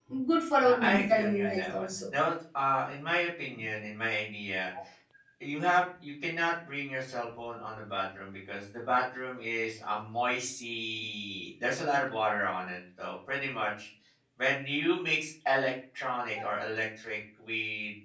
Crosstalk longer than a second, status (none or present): present